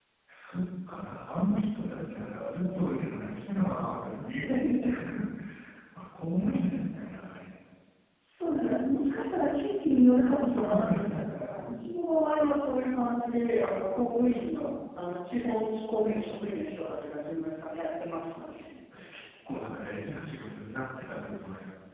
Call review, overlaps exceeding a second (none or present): present